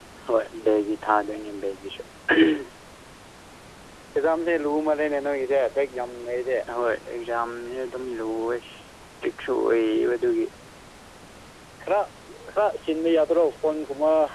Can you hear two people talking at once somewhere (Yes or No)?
No